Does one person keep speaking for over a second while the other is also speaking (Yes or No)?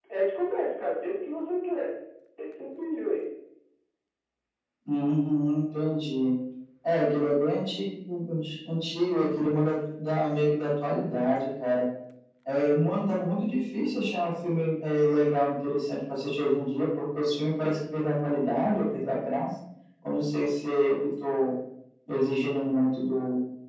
No